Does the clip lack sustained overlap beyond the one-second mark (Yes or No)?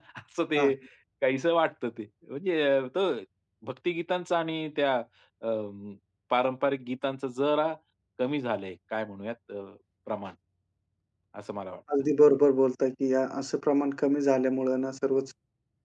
Yes